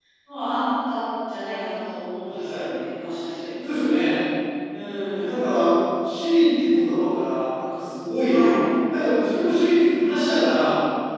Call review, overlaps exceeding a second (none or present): none